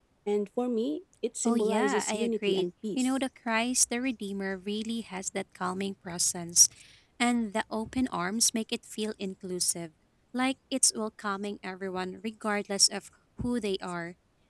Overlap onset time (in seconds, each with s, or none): 1.4 s